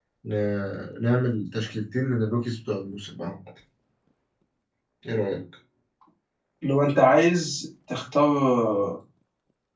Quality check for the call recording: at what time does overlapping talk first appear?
none

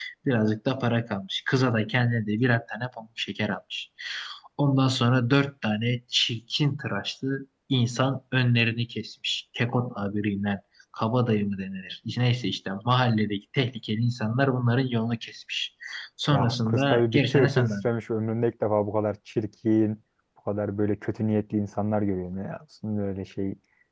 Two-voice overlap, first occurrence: 16 s

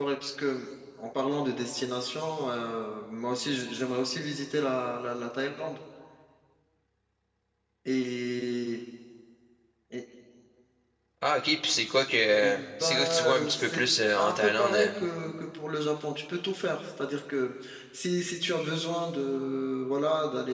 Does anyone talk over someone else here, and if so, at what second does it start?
12 s

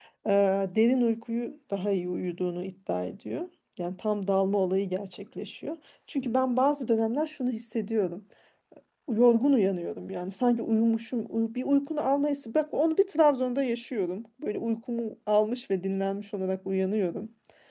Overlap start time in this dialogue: none

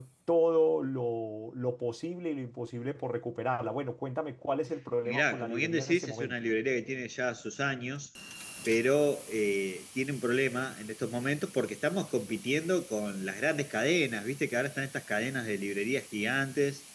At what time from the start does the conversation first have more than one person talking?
5 s

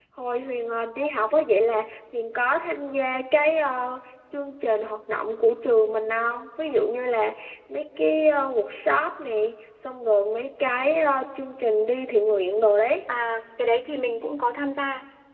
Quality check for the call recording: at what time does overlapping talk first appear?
none

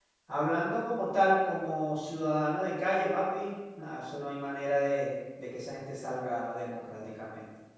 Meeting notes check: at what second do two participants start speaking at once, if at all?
none

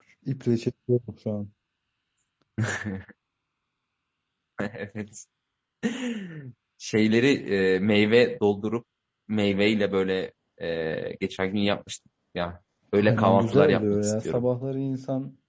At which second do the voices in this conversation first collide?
13 s

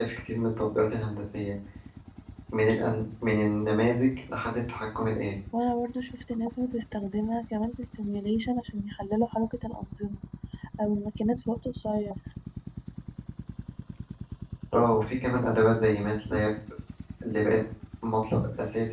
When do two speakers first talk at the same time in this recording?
none

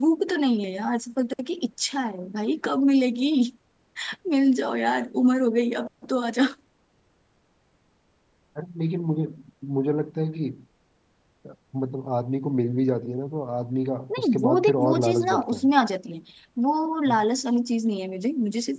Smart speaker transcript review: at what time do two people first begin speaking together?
14 s

